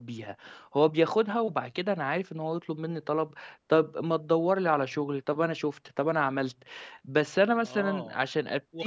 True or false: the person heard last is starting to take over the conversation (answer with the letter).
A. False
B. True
B